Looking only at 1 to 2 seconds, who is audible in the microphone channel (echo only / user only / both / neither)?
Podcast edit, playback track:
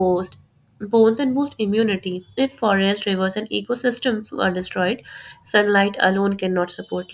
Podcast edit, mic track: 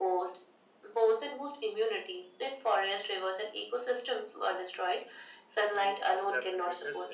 echo only